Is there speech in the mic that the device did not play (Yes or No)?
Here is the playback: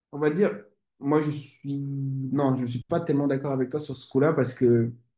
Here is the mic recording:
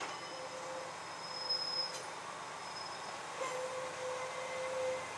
No